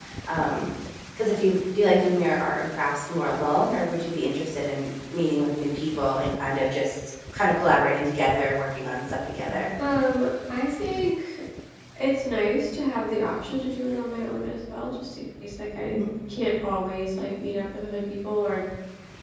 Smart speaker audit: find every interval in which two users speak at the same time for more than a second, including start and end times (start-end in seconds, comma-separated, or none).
none